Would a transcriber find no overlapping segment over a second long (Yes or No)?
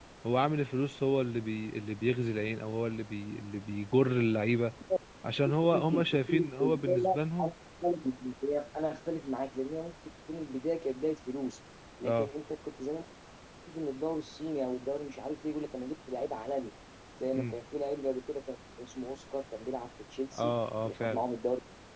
No